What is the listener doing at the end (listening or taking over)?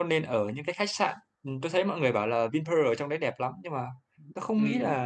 listening